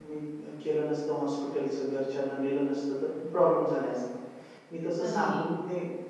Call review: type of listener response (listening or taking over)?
listening